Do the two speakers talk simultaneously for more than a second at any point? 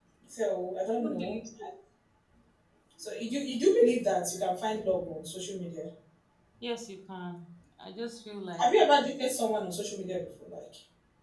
No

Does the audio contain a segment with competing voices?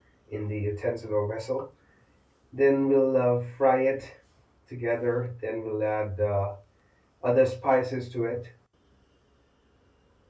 No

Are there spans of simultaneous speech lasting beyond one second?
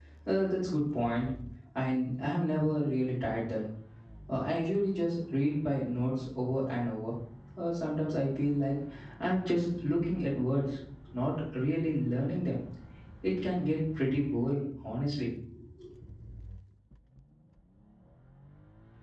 No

